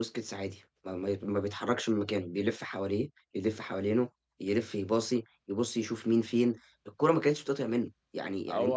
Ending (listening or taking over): listening